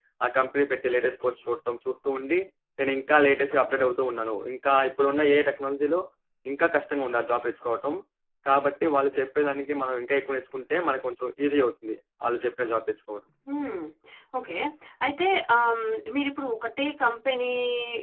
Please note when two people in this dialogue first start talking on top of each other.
none

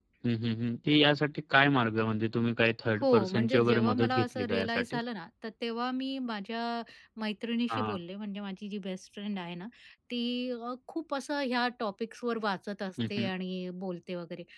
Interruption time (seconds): 3.0 s

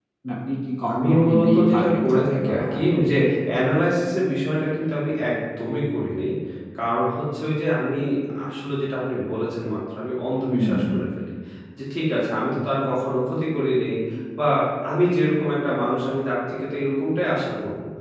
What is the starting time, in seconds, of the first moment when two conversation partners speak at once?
0.9 s

